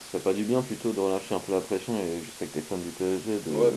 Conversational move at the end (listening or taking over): taking over